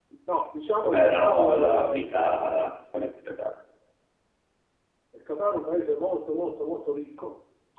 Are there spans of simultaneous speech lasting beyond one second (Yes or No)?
Yes